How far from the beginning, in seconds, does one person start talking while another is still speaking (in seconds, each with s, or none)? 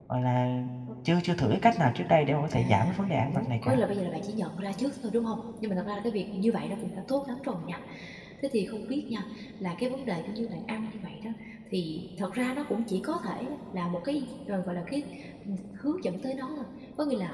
2.5 s